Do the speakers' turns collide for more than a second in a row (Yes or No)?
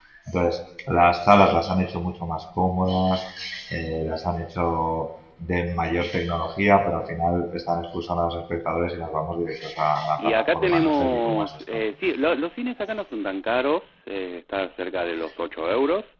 Yes